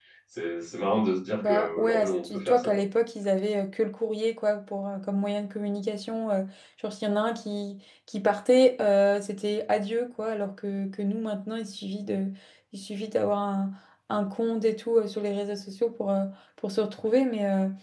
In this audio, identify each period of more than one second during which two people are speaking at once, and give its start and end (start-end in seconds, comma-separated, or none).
1.4-2.8